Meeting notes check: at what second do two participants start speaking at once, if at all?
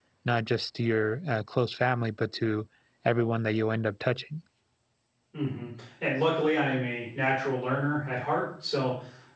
none

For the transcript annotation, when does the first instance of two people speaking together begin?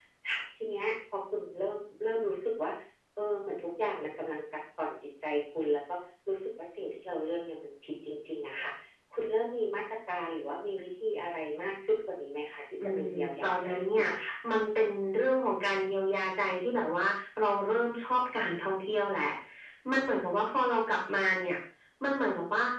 13 s

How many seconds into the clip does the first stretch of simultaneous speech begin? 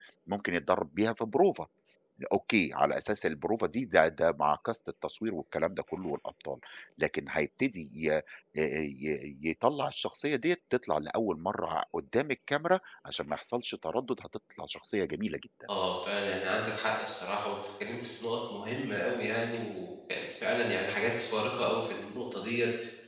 none

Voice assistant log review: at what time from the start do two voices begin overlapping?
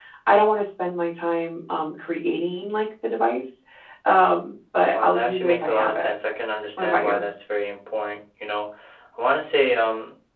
5 s

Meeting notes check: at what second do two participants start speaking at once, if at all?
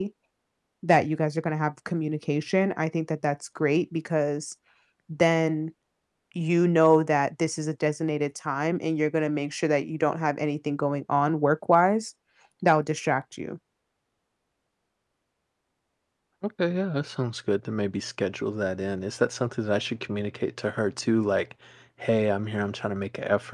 none

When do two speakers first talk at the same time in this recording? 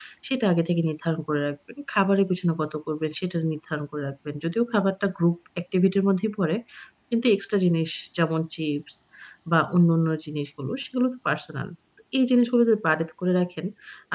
none

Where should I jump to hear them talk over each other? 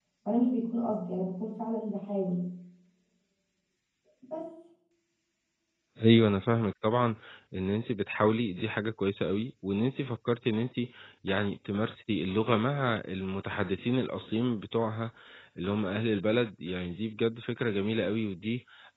none

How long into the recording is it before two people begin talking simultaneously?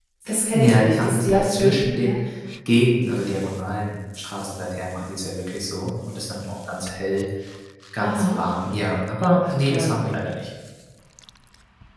1 s

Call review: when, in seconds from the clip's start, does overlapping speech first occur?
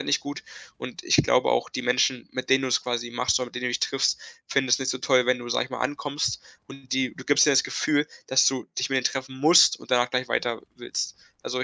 none

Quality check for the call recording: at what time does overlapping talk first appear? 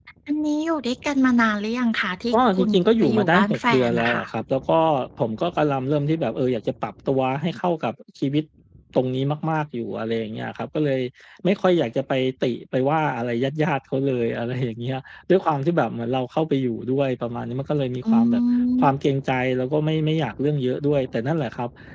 3 s

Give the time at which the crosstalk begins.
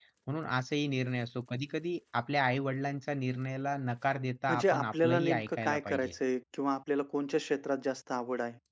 4 s

